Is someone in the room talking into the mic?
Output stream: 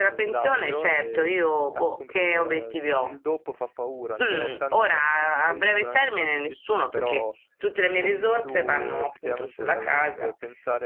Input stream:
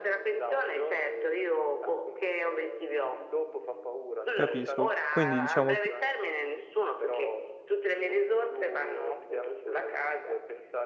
Yes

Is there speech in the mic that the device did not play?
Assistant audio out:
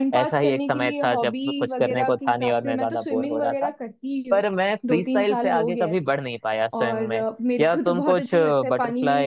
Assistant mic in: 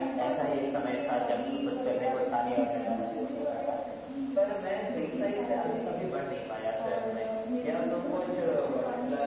Yes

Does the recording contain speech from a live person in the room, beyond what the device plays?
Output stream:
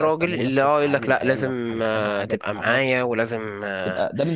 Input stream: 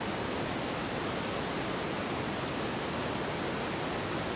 No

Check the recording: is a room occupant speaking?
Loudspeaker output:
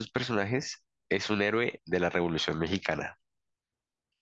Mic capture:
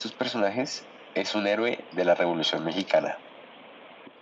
No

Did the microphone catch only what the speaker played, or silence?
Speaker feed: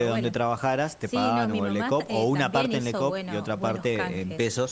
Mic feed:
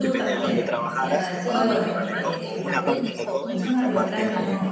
No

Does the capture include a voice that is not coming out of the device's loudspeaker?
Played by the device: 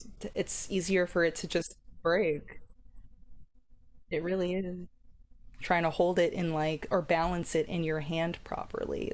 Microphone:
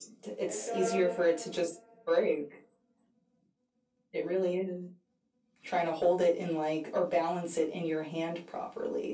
Yes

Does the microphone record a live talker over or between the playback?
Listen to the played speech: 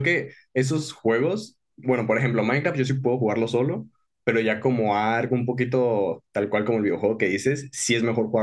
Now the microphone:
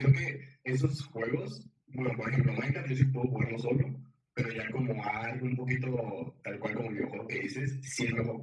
No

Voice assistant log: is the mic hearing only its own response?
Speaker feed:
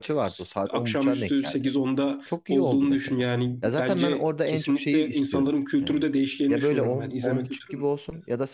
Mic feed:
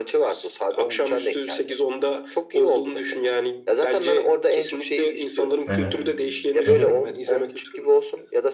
No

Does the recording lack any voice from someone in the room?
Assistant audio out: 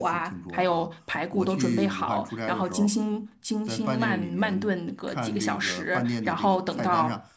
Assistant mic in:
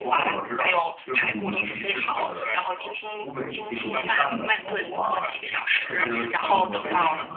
No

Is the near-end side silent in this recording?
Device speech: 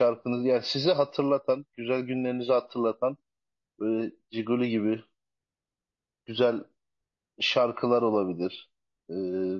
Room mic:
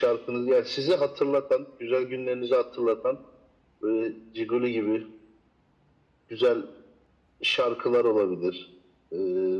Yes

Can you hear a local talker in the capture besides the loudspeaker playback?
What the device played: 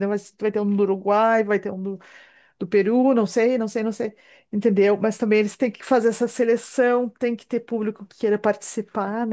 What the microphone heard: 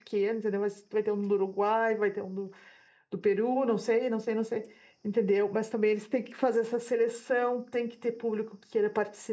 No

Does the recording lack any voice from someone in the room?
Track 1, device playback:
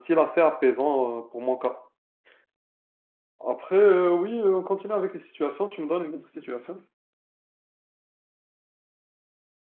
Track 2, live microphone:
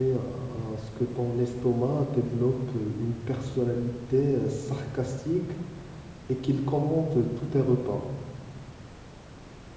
No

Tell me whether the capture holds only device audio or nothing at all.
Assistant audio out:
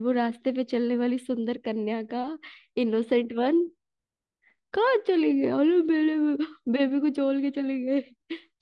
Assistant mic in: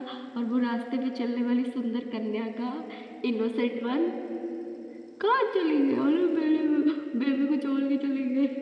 Yes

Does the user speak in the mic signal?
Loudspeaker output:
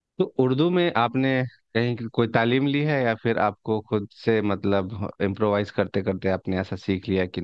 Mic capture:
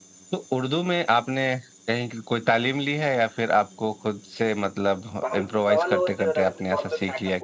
Yes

